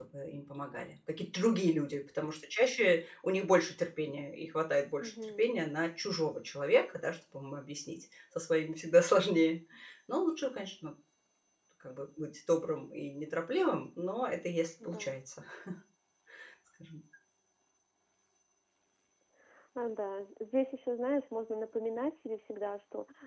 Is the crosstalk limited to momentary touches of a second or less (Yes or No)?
Yes